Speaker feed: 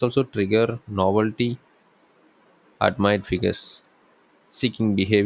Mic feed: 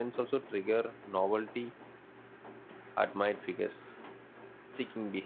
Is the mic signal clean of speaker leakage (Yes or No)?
No